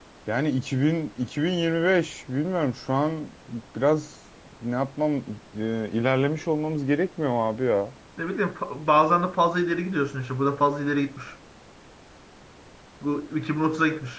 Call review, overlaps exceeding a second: none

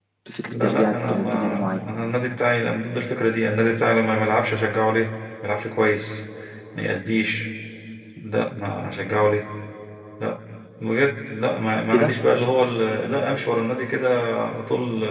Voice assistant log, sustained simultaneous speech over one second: present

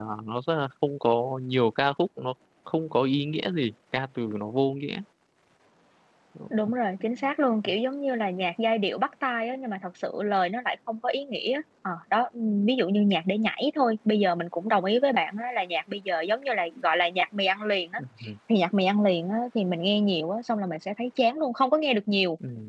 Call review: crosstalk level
none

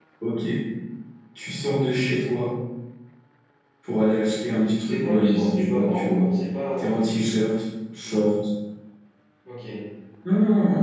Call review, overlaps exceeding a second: present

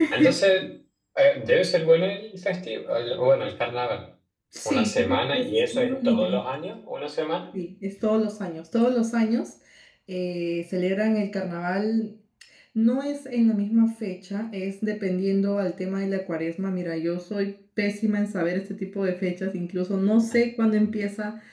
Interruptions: present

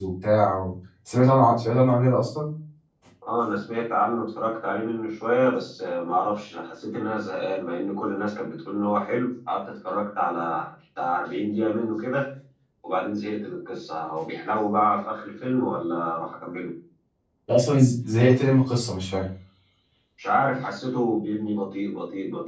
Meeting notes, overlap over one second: none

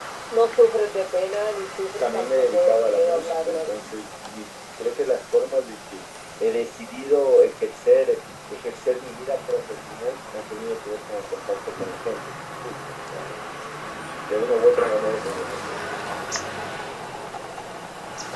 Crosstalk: present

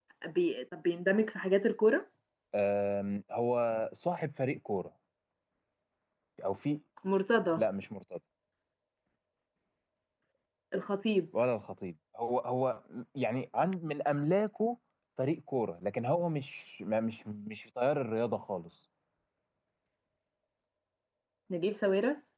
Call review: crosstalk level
none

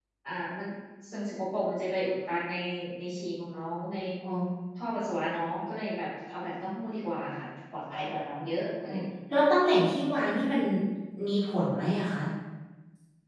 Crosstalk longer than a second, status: none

